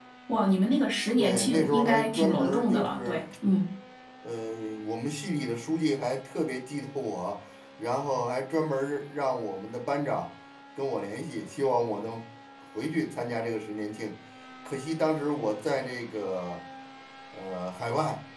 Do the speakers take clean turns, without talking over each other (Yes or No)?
No